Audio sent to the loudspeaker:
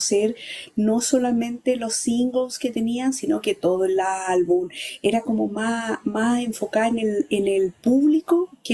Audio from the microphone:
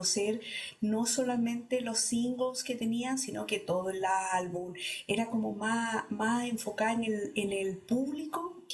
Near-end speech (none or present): none